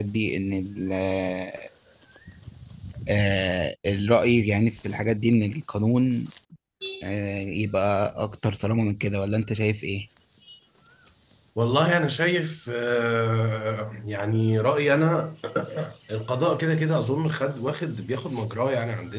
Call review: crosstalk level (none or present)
none